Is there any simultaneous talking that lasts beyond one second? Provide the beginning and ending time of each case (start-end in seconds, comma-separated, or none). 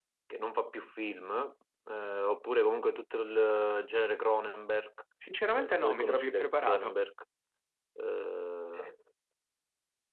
5.5-6.9